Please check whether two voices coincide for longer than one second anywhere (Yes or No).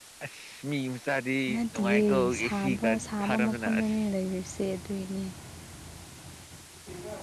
Yes